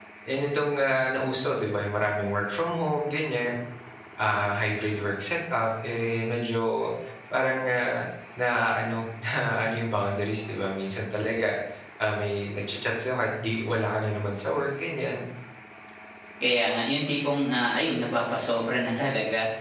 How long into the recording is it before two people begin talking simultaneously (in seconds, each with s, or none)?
none